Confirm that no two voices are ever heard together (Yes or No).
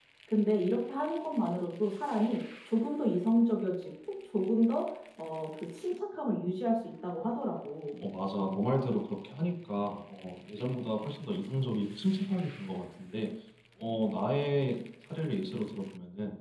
Yes